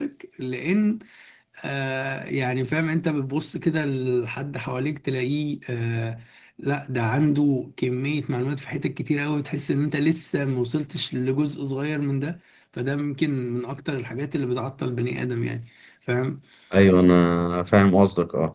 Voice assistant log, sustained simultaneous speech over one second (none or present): none